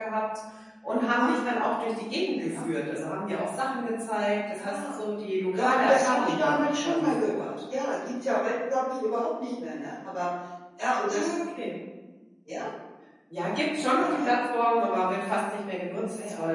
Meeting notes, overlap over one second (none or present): present